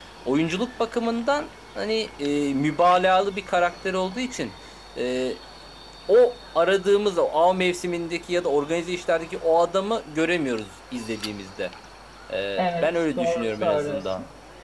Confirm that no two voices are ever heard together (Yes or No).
No